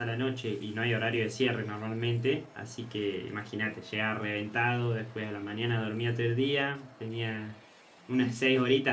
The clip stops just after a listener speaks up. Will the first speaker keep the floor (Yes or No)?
Yes